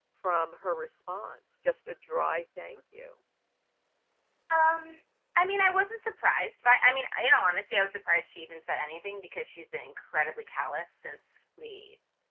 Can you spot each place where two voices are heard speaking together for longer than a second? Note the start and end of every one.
none

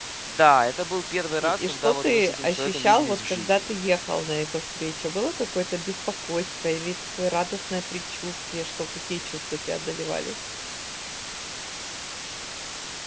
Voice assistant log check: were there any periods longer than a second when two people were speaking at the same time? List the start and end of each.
1.4-3.6

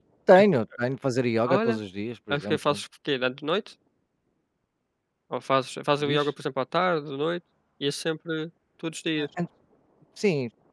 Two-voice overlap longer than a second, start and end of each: none

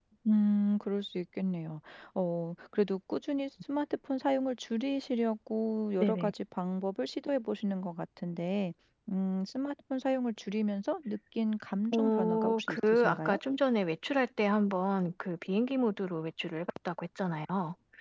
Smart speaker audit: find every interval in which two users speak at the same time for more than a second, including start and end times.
11.9-13.4

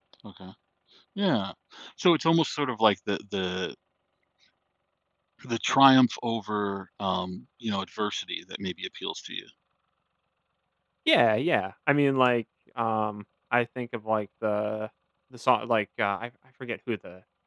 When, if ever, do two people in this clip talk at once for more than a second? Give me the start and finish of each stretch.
none

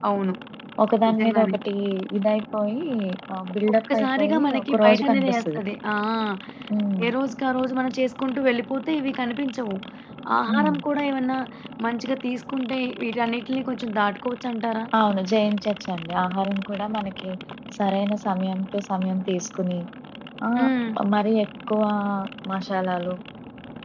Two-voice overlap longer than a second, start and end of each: 3.9-5.6

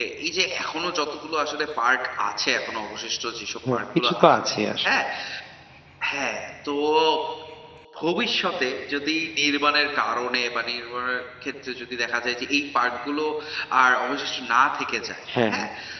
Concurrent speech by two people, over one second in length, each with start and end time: 3.7-4.9

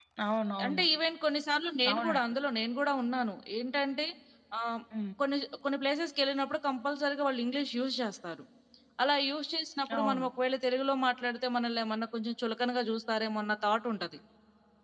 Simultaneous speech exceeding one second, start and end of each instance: none

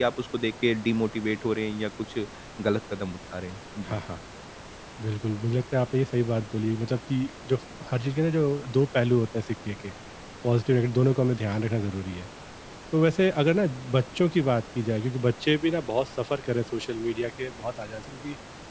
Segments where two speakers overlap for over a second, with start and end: none

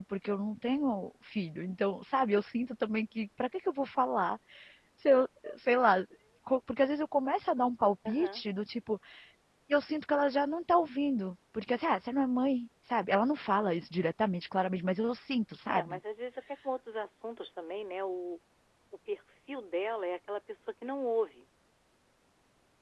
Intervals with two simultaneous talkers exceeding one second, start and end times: none

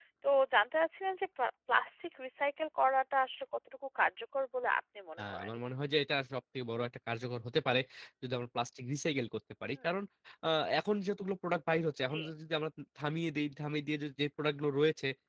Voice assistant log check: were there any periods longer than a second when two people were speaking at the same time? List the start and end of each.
none

